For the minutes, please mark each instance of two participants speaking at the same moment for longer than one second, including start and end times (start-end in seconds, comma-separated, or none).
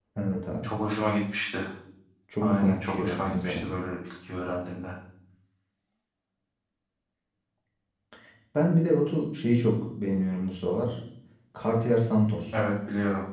2.4-3.7